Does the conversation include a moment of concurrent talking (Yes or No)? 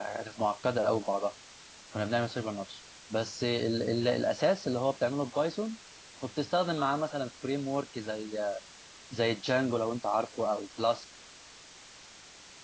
No